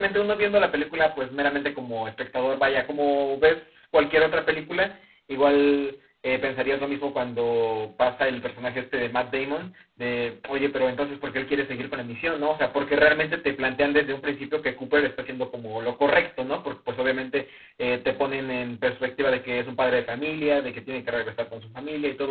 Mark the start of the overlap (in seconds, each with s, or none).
none